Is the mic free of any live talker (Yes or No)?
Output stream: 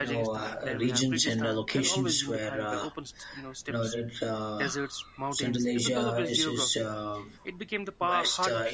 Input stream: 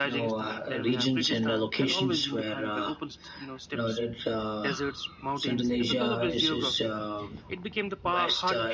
Yes